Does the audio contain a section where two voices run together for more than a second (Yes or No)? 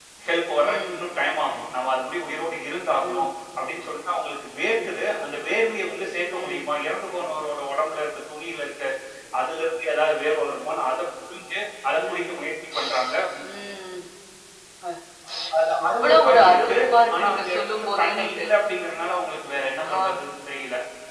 Yes